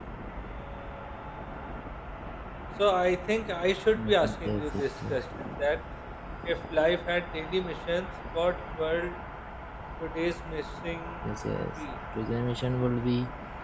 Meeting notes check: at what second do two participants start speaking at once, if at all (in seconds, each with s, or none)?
3.9 s